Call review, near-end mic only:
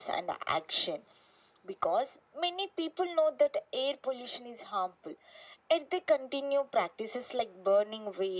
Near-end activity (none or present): none